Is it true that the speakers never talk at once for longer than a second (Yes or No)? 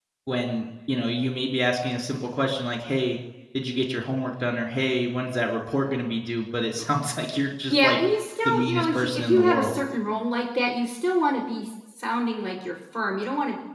No